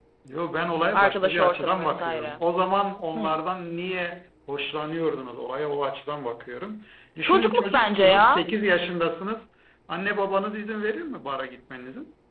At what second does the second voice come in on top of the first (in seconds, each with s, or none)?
0.9 s